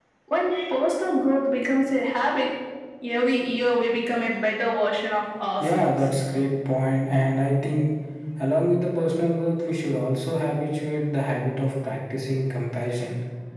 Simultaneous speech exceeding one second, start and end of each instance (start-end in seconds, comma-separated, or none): none